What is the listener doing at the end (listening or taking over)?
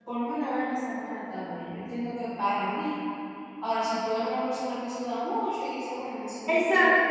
taking over